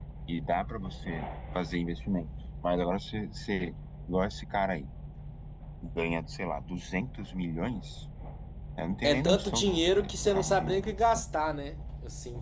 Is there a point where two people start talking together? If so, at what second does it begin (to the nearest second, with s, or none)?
9 s